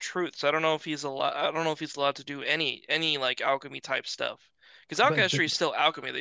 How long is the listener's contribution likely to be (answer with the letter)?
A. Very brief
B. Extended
A